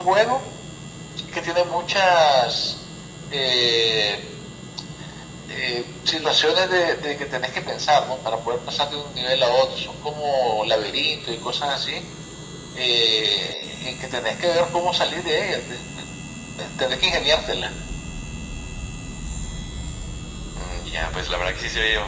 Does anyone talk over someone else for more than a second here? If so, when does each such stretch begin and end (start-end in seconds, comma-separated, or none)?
none